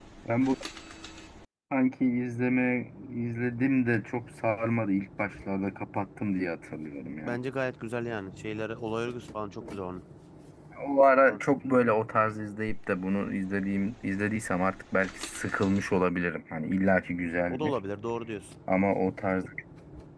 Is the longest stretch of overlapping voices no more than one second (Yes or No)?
Yes